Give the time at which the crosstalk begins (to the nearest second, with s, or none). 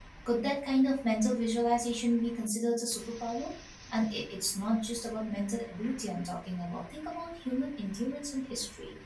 none